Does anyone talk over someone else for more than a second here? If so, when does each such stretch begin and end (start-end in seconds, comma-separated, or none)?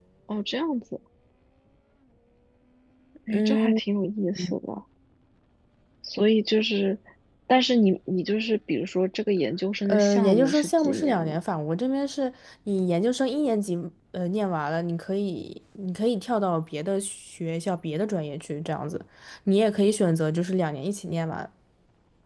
9.8-11.4